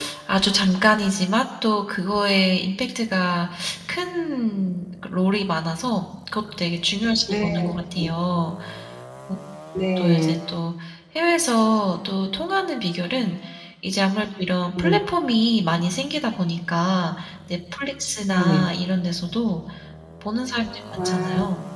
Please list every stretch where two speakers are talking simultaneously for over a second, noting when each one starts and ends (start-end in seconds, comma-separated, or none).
none